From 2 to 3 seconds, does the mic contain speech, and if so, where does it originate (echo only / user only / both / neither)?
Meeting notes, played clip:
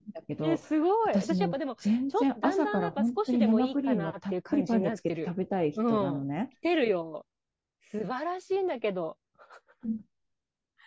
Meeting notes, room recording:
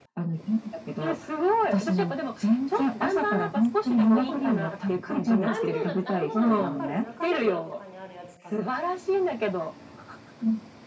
echo only